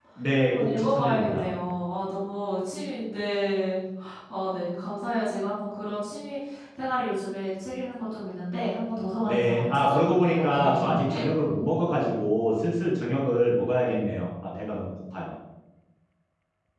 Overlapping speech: Yes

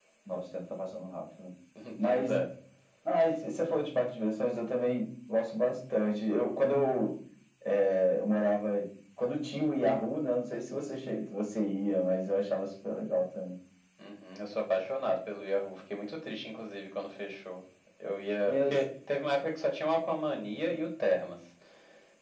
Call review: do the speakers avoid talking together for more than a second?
Yes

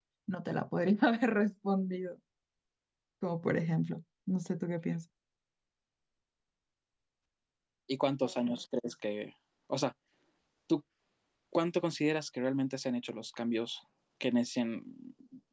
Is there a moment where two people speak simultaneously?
No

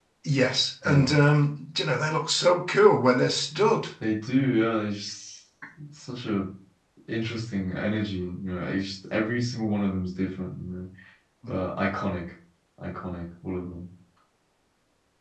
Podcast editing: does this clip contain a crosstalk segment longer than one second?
No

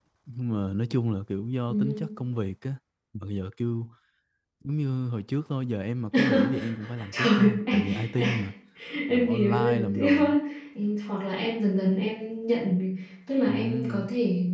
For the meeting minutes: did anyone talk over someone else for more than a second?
Yes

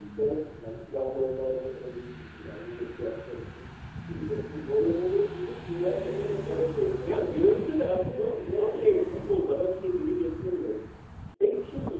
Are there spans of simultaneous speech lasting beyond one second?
Yes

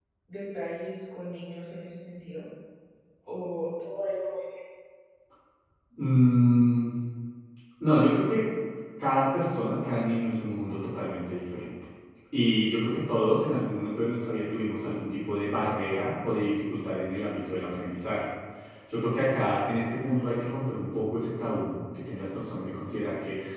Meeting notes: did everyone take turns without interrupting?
Yes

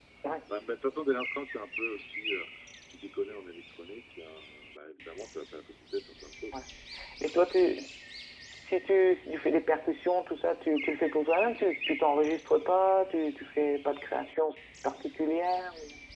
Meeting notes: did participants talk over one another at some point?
No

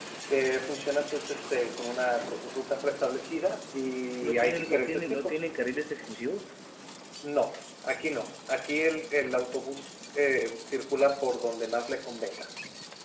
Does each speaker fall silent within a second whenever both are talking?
No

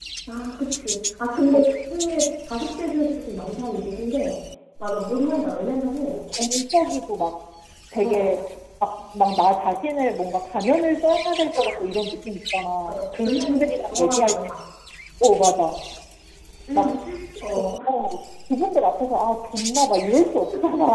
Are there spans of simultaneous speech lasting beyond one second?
Yes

